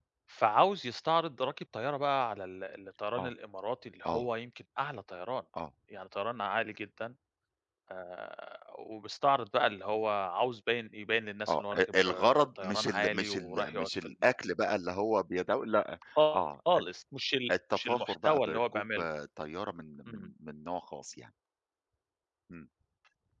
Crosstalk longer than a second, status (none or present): present